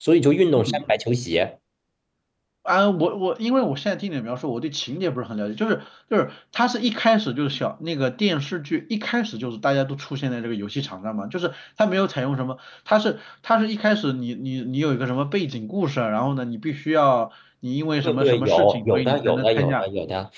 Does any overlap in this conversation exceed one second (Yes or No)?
Yes